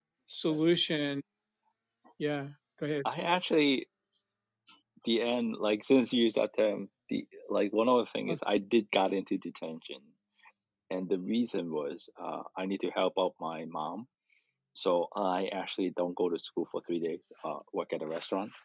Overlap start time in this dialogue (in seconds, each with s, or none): none